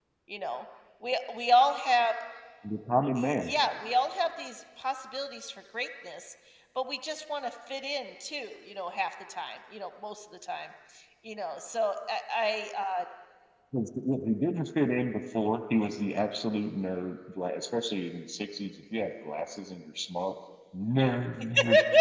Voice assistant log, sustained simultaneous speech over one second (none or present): none